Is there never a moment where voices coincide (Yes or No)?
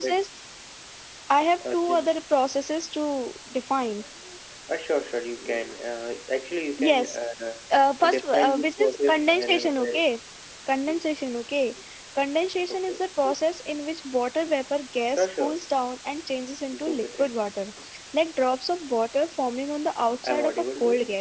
No